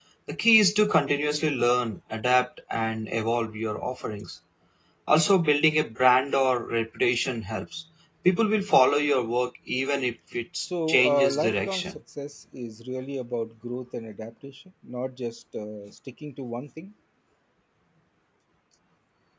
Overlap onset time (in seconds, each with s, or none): 10.6 s